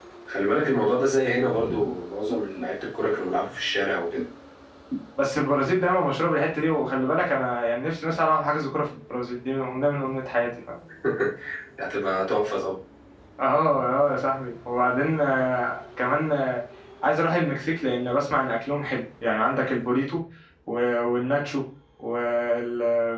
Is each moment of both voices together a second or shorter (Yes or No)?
Yes